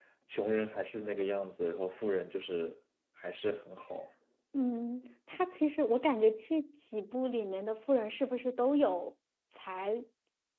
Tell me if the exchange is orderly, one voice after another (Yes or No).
Yes